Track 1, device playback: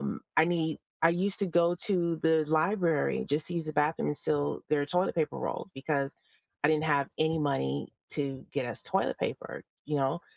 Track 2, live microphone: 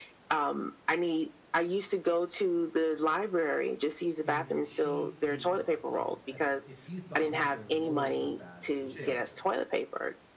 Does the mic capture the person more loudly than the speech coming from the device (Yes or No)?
No